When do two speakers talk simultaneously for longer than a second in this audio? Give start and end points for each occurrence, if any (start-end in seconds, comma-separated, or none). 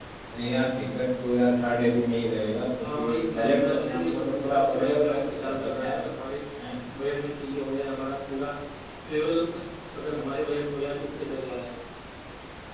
2.8-5.9